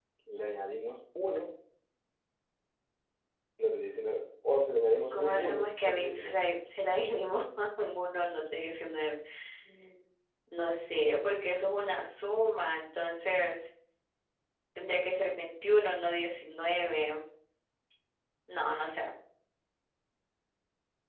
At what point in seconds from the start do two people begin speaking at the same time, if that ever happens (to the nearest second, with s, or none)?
5 s